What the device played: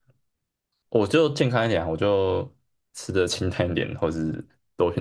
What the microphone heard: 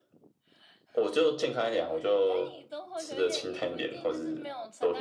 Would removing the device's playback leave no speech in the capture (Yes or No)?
No